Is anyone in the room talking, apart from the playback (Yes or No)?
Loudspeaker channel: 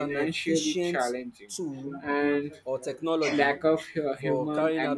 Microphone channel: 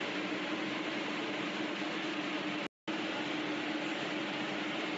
No